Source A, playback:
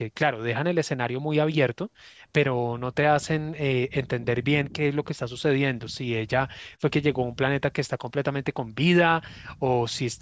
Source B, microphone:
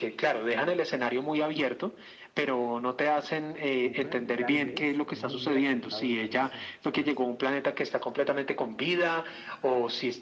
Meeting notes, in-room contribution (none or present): present